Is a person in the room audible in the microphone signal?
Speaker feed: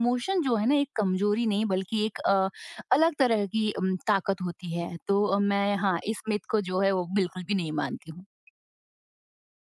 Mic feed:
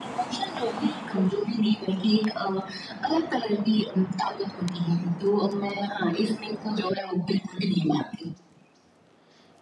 No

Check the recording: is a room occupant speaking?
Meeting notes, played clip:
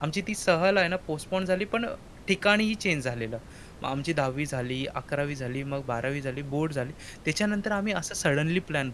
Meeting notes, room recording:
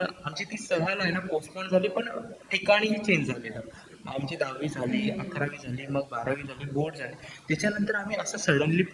Yes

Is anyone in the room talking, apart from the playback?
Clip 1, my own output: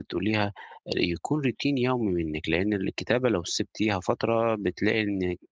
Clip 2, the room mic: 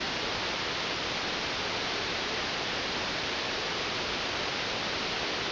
No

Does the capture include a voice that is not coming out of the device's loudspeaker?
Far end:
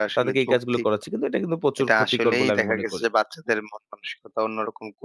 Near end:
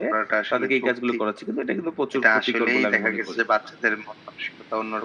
No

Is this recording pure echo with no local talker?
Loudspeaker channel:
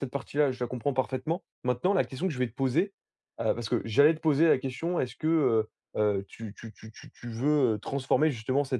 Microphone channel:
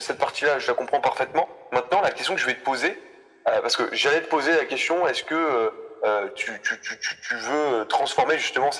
Yes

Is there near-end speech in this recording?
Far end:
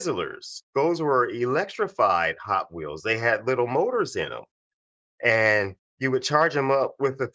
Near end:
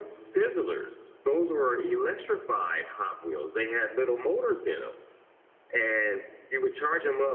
No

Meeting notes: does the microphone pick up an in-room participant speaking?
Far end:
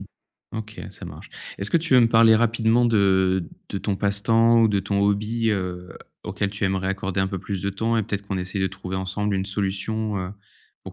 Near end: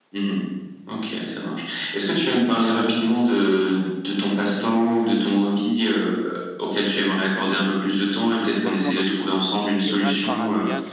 Yes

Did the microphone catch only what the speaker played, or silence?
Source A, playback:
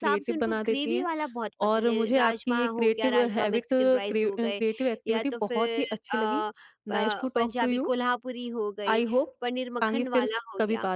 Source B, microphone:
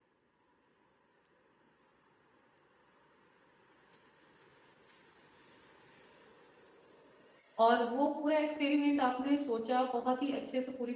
No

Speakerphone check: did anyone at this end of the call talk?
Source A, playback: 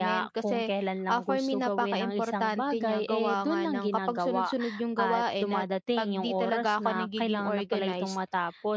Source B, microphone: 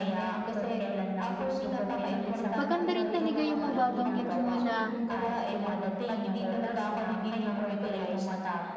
Yes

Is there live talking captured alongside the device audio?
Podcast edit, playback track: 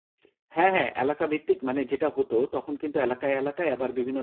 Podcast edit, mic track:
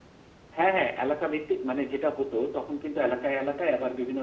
No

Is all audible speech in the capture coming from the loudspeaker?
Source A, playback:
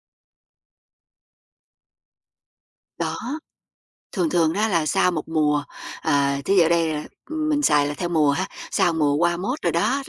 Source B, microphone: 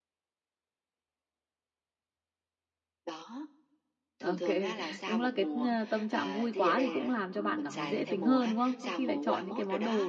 No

